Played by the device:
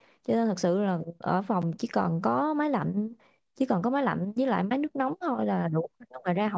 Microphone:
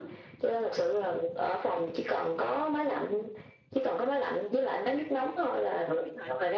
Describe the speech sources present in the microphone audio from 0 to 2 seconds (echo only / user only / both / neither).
echo only